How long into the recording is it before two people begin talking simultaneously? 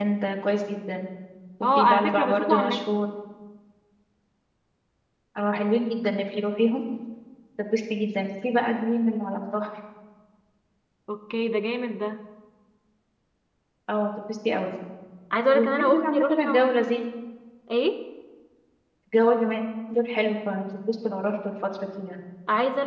1.6 s

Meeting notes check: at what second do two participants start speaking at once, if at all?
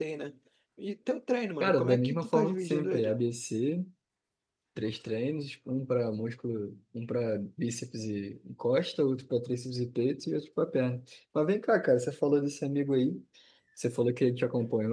1.6 s

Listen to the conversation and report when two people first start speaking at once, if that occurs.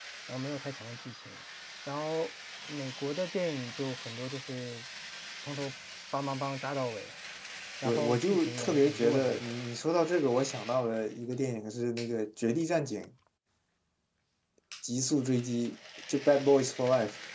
7.8 s

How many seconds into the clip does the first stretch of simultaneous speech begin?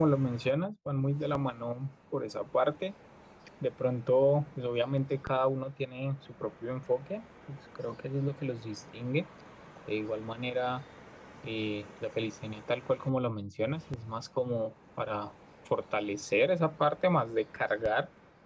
none

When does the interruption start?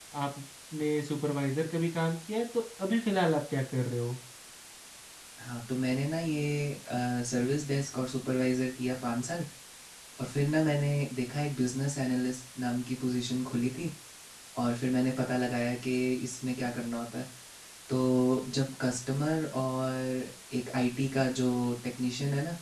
none

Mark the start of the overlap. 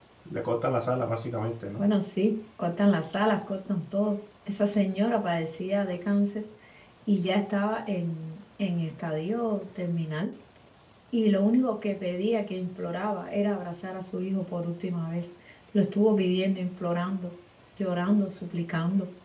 none

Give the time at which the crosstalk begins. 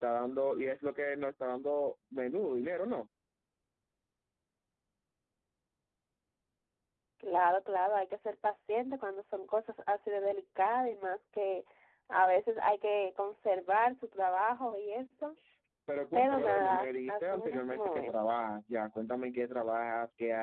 16.1 s

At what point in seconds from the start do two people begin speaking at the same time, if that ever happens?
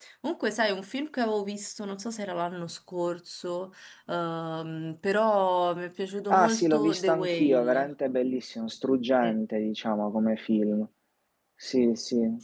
6.3 s

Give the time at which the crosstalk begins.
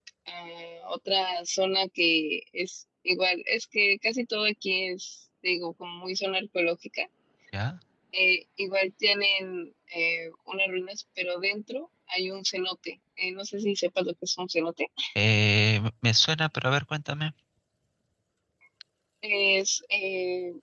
none

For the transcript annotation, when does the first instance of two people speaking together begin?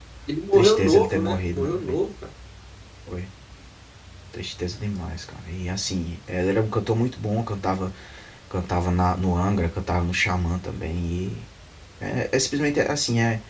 0.5 s

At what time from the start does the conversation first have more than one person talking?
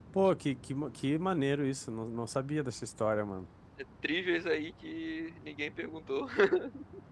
none

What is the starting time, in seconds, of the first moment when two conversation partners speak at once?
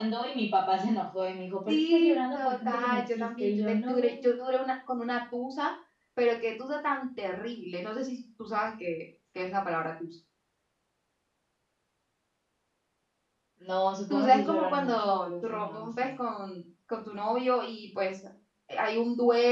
1.7 s

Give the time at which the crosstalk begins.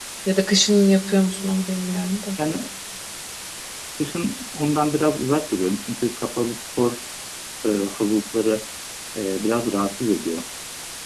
none

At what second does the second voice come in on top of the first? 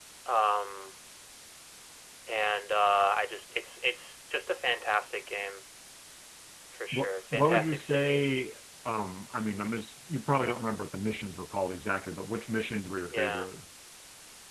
6.9 s

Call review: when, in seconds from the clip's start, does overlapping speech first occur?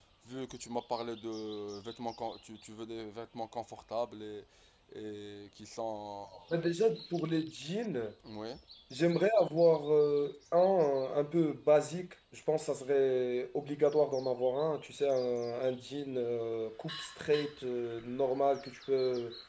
none

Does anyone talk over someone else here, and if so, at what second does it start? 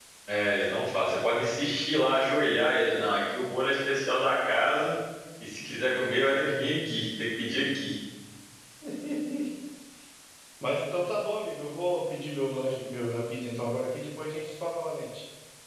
none

